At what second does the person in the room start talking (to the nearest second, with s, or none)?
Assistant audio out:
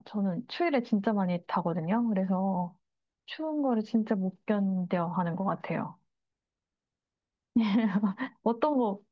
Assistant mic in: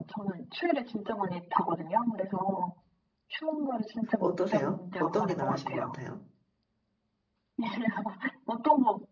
4 s